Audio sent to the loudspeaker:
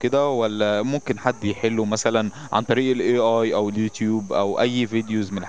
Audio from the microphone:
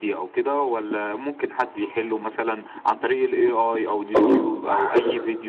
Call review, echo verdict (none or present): present